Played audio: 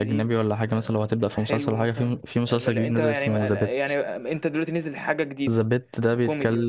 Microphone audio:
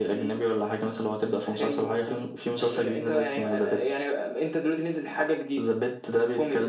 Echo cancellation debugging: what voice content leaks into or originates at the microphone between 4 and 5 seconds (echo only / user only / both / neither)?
echo only